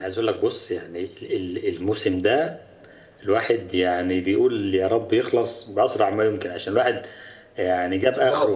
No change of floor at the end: Yes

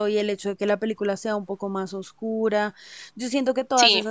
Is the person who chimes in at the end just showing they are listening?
Yes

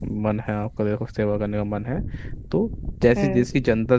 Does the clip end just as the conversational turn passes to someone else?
No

